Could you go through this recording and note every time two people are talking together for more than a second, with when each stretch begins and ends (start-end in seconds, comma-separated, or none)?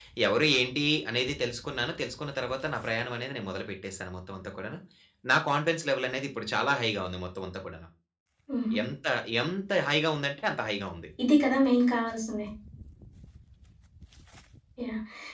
none